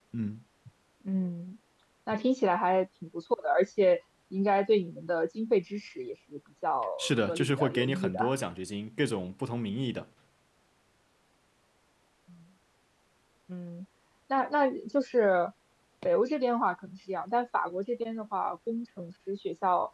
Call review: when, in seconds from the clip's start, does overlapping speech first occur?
7.0 s

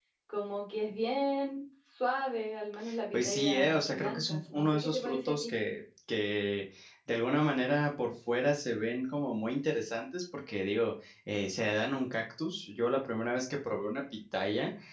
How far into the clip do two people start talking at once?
3.1 s

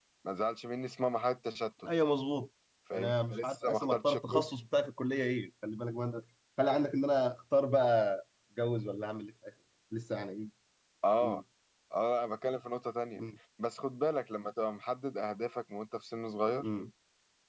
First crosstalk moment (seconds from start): 3.0 s

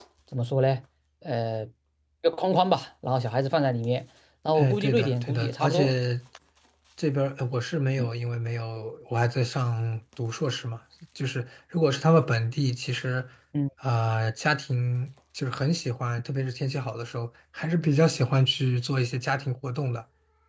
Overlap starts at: 4.5 s

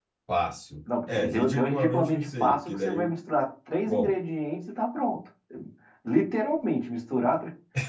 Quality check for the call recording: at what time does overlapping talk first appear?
1.1 s

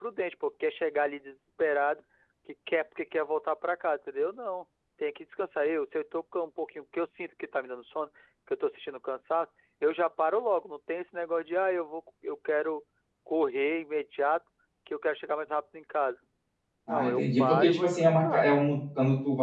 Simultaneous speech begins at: 16.9 s

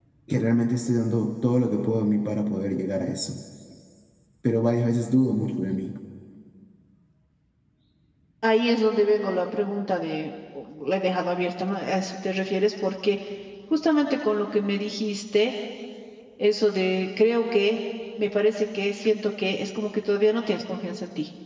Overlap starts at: none

